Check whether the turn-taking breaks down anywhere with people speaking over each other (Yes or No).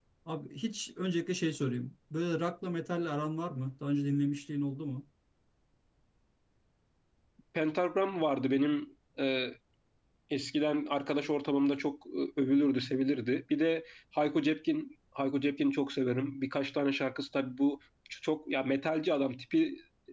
No